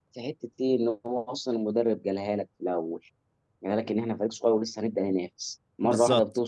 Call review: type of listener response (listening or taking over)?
listening